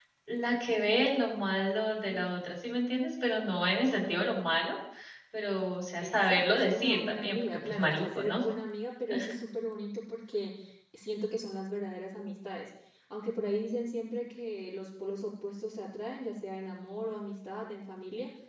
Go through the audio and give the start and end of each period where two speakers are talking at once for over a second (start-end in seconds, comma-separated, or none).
6.0-8.4